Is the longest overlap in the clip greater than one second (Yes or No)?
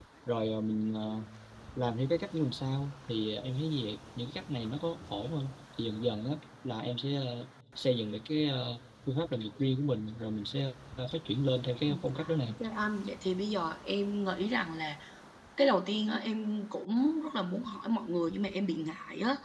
No